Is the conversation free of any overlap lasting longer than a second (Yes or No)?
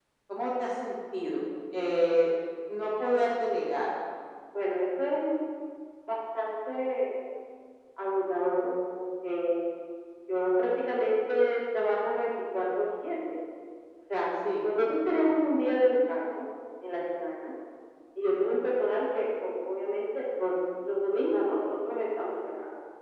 Yes